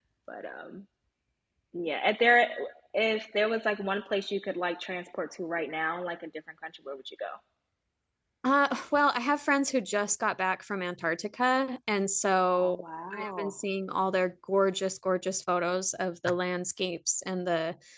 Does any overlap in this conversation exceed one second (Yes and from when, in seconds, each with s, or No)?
No